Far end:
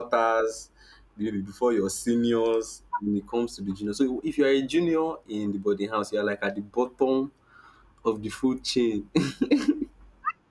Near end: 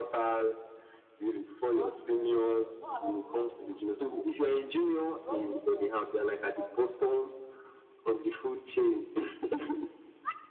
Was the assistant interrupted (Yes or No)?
Yes